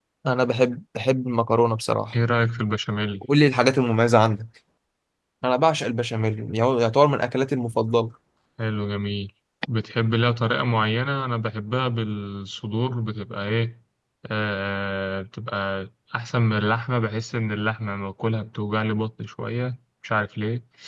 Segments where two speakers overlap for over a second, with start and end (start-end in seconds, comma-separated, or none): none